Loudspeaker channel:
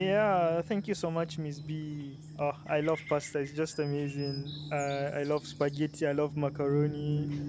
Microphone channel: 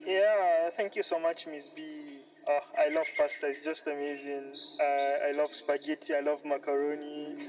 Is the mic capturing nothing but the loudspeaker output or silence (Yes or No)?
Yes